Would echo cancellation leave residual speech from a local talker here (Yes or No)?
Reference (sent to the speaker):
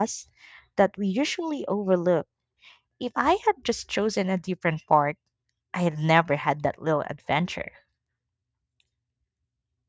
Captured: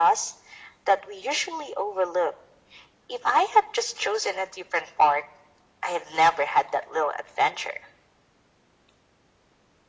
No